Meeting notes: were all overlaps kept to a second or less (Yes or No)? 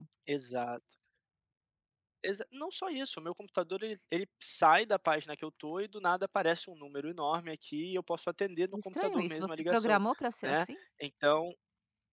No